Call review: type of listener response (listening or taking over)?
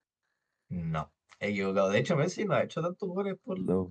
listening